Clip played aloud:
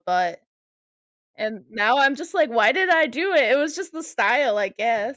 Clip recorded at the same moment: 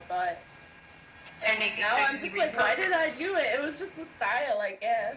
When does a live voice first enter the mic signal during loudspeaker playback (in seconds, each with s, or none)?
1.5 s